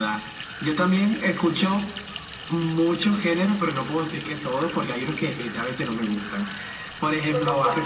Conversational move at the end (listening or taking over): listening